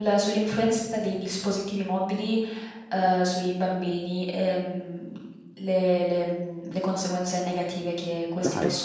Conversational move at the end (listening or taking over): listening